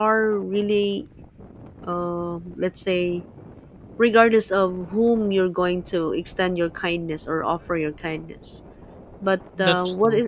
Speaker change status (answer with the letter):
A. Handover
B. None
B